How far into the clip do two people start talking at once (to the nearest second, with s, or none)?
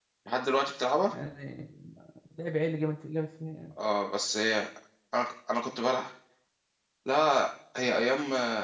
none